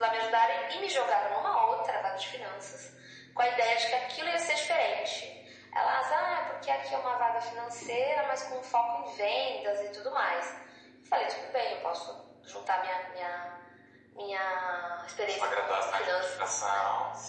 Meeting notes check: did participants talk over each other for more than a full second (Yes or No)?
Yes